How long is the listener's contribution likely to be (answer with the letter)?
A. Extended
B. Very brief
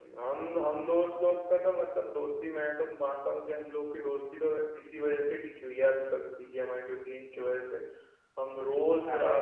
B